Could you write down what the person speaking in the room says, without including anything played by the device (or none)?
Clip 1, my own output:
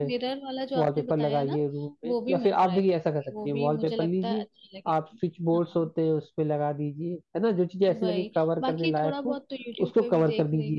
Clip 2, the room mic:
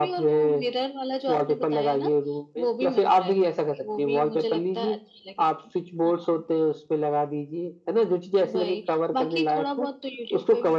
none